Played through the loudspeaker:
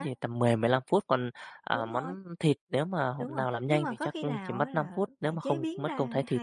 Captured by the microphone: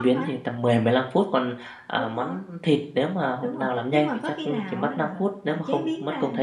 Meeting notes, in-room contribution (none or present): none